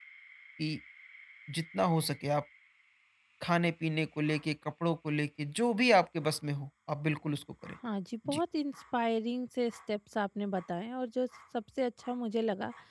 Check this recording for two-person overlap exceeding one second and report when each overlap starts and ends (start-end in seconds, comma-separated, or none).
none